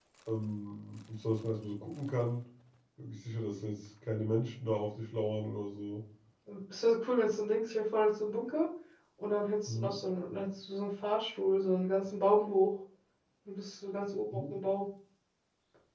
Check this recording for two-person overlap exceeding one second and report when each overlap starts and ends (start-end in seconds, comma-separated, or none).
none